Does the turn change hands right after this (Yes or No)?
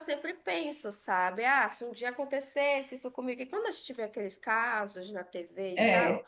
No